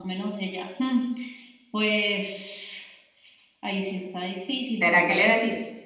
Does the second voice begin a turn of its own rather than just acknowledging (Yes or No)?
Yes